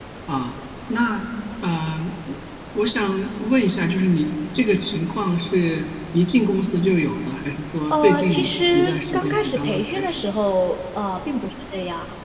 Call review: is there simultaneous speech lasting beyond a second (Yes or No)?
Yes